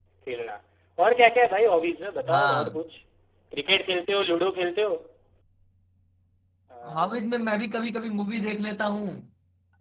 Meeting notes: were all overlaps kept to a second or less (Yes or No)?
Yes